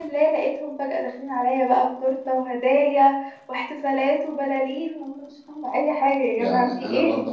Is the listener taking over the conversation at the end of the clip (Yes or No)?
Yes